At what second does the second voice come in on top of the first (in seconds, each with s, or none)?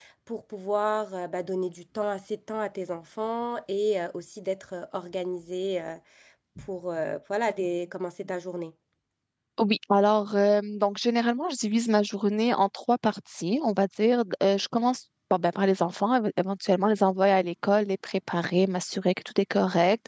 none